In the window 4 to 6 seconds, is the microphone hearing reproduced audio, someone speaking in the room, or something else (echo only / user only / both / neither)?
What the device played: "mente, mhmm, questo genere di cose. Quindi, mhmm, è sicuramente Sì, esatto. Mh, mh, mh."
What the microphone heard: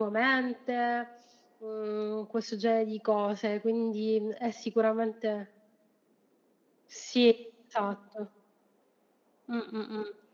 echo only